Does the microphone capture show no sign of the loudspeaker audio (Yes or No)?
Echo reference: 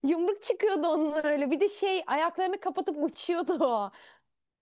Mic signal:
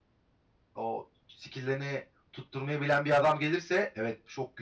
Yes